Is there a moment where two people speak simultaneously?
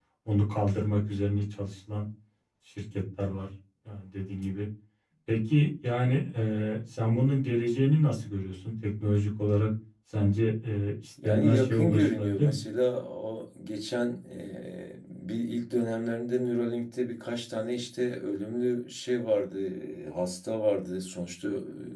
Yes, from 11.2 s

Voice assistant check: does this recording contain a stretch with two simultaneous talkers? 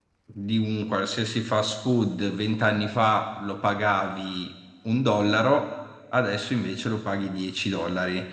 No

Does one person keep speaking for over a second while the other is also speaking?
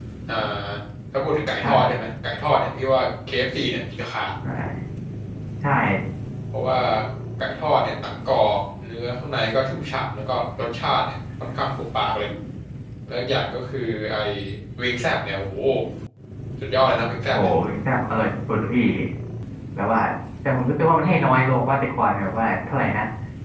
No

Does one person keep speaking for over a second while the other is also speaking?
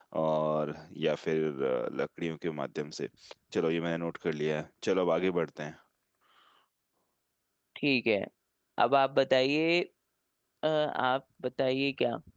No

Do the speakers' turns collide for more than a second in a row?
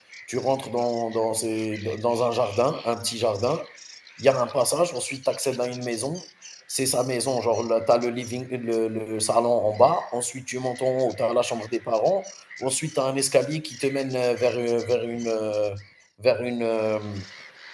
No

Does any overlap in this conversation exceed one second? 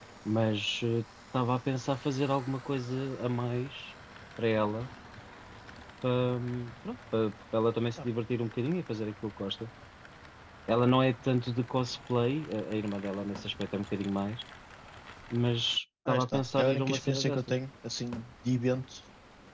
Yes, from 16.1 s

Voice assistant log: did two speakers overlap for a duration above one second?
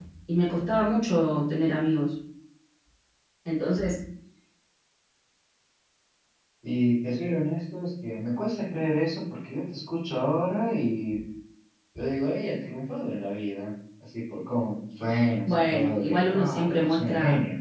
Yes, from 15.4 s

